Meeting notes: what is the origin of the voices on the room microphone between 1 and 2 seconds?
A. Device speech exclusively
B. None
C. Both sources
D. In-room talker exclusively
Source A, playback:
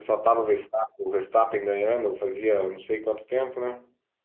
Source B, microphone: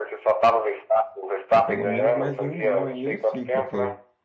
C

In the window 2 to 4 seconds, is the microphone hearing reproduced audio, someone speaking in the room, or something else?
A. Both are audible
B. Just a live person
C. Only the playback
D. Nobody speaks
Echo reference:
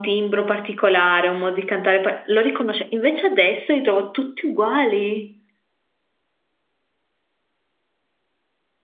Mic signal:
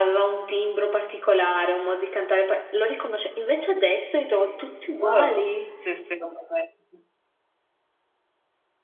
C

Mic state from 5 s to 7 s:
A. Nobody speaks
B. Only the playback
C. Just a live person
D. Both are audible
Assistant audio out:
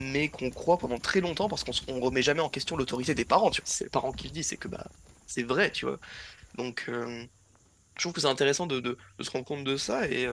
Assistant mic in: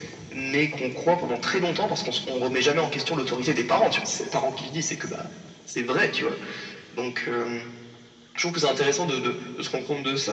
B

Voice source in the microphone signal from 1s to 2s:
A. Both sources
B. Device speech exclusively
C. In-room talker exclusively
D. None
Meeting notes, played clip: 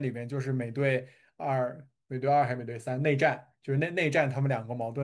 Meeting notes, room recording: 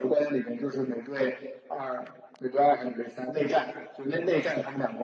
B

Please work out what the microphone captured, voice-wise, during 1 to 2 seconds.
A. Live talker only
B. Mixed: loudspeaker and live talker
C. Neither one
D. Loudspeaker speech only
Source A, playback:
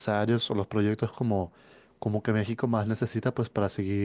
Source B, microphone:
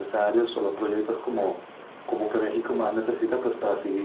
D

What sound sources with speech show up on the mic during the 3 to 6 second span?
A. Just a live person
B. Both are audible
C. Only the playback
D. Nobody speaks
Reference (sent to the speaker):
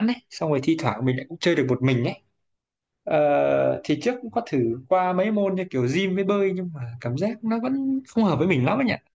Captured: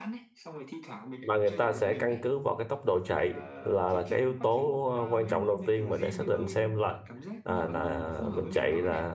B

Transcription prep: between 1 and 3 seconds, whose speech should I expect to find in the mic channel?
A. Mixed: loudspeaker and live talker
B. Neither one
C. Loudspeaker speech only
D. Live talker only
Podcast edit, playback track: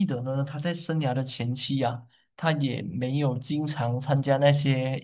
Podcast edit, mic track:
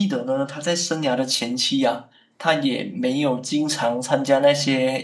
C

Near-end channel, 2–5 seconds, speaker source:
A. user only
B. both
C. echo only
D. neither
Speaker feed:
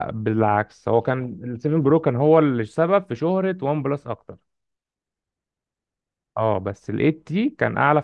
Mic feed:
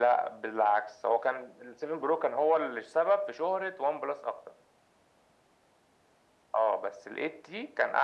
C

